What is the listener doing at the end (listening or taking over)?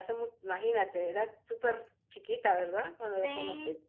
taking over